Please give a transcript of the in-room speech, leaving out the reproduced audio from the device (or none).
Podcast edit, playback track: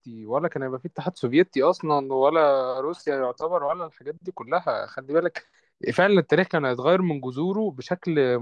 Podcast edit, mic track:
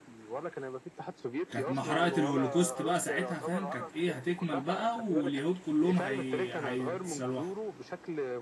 كانت محرقة الهولوكوست بقى ساعتها فاهم كانت ايه هتكمل بقى واليهود كلهم هي... هيتسلوحوا